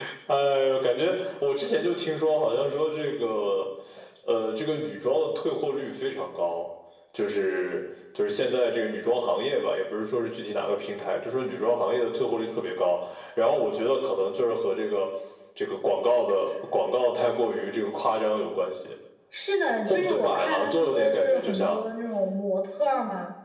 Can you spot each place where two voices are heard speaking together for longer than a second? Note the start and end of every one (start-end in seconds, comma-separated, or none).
19.8-21.9